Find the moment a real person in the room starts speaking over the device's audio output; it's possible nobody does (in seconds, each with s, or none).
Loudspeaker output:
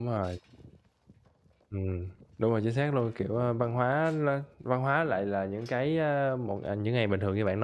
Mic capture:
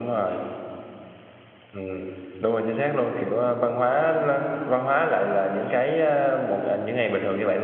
none